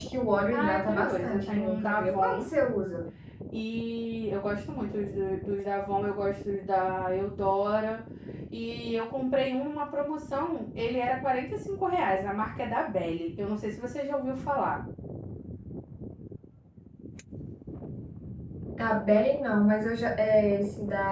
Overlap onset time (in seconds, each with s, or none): 0.5 s